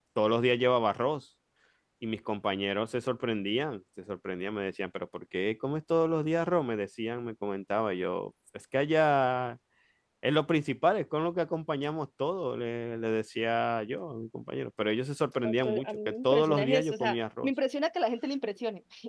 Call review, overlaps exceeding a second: present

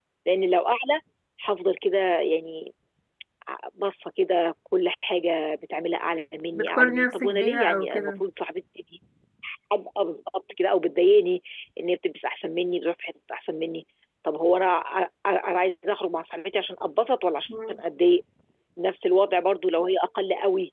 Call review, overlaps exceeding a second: present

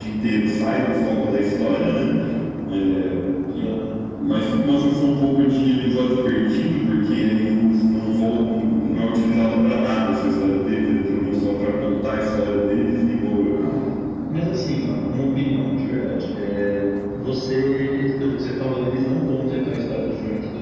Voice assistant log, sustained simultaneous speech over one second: none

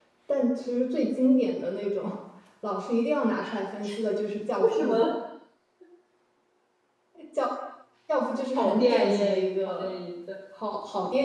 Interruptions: present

